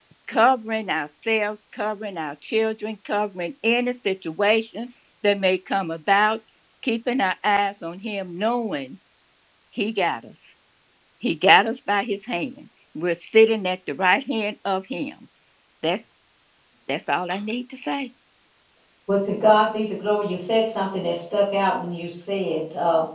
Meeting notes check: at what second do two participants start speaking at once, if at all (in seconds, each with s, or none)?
none